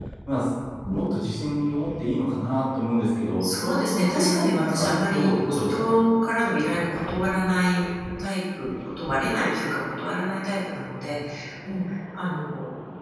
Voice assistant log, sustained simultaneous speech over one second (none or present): present